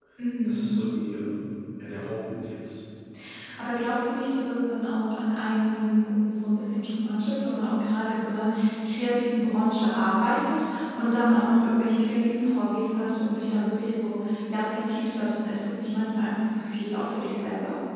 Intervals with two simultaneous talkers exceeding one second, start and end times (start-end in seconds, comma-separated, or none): none